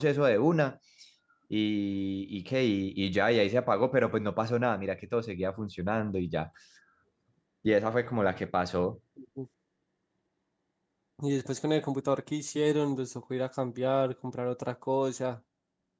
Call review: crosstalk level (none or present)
none